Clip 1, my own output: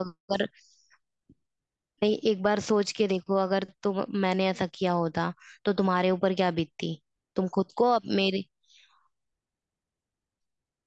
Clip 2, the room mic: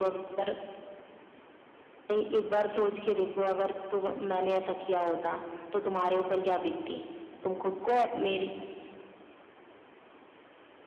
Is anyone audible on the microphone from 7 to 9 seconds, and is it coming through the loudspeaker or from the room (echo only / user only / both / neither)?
echo only